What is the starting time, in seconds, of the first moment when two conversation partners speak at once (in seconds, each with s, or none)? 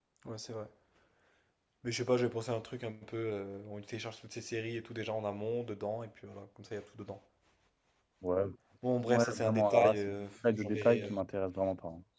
9.0 s